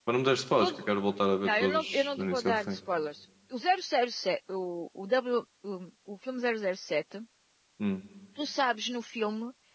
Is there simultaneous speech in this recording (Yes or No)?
Yes